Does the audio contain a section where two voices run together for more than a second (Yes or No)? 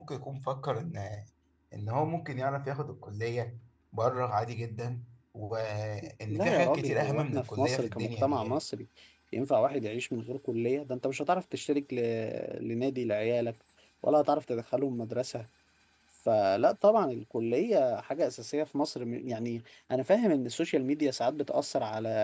Yes